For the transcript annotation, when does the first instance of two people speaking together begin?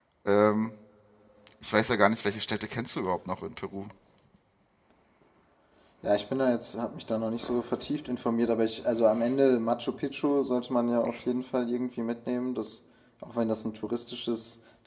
none

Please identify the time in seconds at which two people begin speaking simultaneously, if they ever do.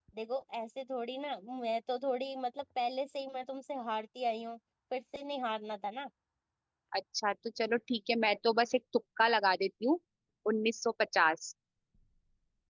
none

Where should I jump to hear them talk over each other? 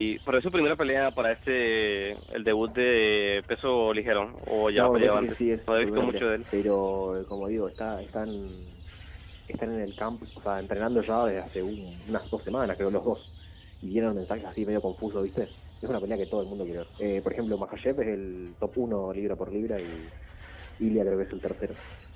4.8 s

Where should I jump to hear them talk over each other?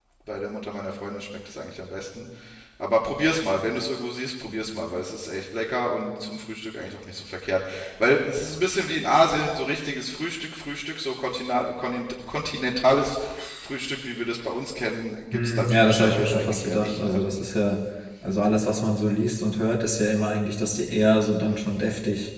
15.3 s

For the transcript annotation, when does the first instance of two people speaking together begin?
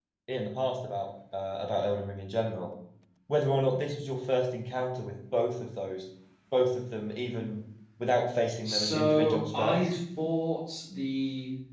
8.6 s

